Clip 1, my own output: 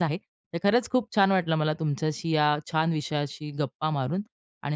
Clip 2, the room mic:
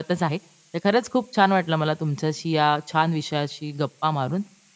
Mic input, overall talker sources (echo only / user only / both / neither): echo only